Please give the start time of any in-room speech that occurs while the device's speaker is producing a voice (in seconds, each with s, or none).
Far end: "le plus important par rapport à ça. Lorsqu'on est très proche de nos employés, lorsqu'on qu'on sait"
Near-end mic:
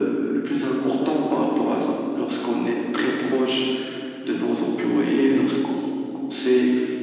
none